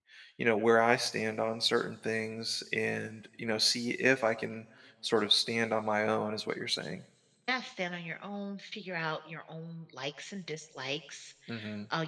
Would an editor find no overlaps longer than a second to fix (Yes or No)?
Yes